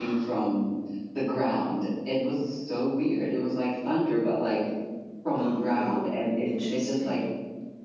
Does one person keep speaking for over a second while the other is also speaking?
Yes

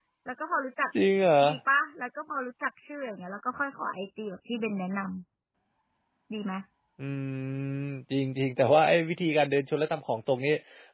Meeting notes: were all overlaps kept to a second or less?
Yes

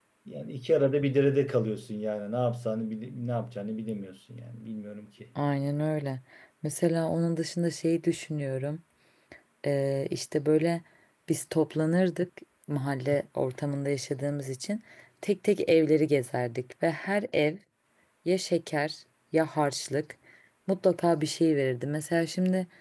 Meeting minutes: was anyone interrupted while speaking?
No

